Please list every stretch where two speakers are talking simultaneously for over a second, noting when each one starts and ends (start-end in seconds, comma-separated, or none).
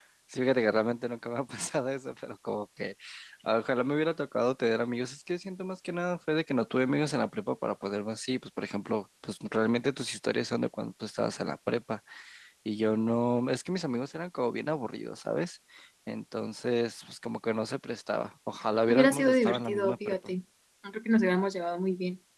18.9-20.2